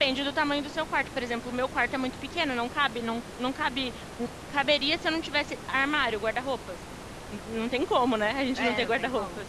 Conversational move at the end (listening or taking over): taking over